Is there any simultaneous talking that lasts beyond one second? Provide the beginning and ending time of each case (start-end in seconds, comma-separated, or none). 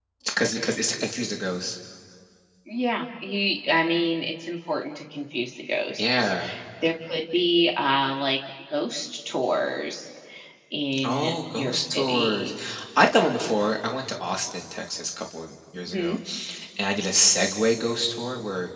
11.0-12.5